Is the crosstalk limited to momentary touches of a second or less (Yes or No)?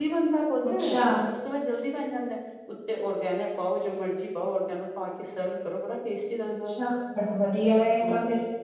Yes